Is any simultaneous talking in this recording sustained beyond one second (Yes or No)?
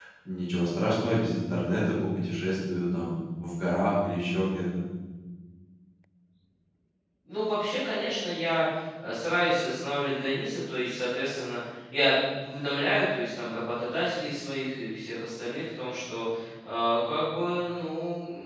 No